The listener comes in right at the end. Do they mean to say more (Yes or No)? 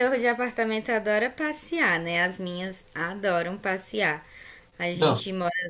No